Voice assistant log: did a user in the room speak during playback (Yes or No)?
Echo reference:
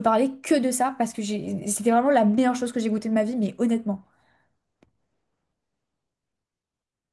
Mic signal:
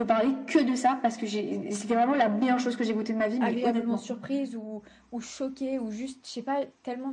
Yes